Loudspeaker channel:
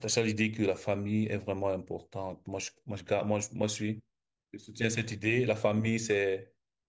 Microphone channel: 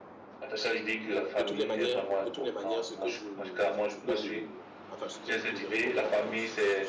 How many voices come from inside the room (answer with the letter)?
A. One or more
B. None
A